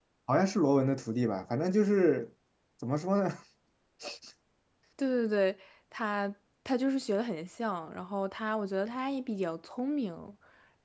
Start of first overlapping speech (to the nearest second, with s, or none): none